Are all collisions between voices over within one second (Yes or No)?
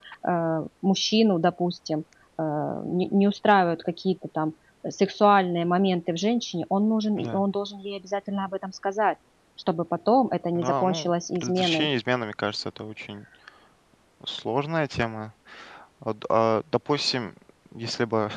No